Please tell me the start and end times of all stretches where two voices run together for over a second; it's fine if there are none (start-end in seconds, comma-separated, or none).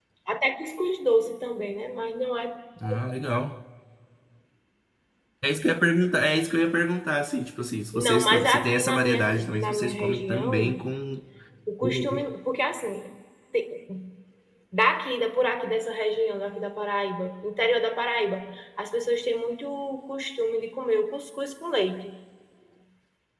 7.9-10.7